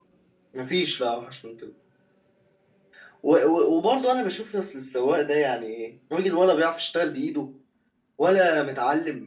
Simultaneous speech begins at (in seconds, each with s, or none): none